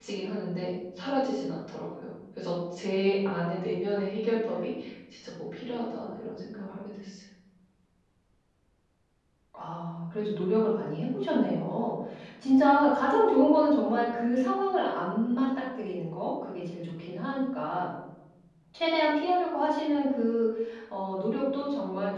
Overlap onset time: none

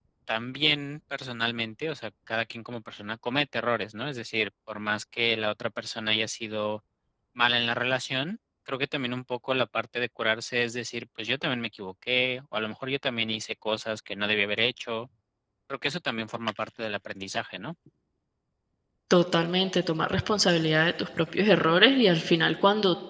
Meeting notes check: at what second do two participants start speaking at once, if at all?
none

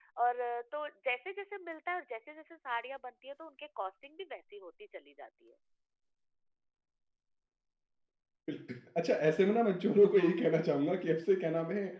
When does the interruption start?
none

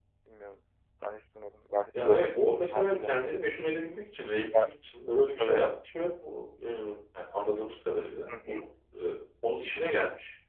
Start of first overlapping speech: 2 s

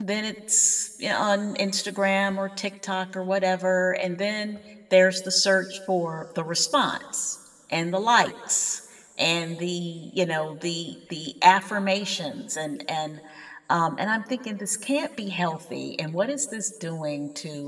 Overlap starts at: none

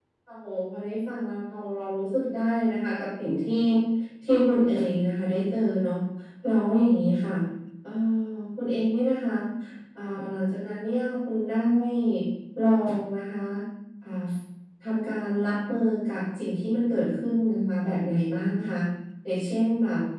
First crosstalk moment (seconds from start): none

